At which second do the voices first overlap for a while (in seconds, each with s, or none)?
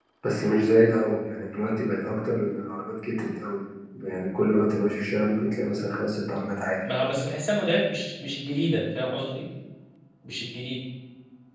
none